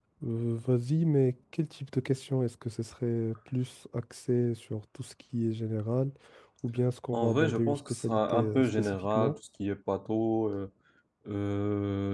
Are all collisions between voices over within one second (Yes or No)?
No